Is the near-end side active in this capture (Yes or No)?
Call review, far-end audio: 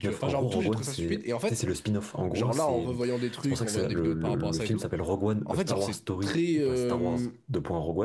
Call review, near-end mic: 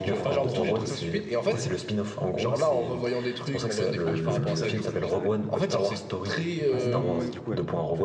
Yes